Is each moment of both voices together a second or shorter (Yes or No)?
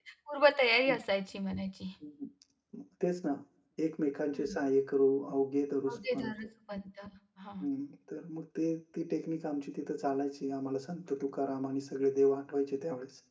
Yes